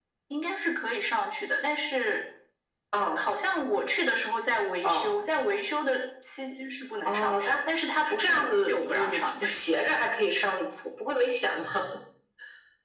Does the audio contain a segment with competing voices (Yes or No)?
Yes